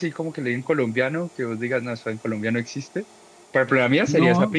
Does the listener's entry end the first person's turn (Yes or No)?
Yes